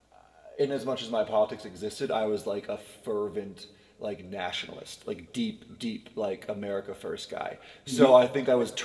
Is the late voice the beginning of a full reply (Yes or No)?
No